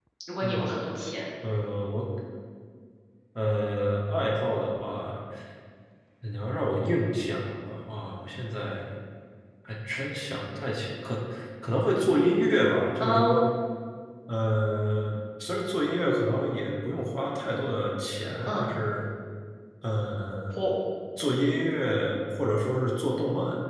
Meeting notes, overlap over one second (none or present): none